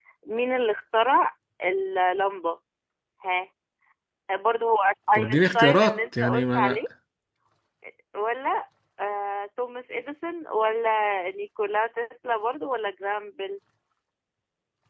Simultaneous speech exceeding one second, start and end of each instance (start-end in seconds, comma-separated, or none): 5.1-6.8